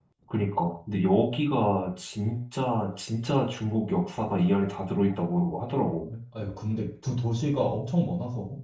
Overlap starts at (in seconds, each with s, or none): none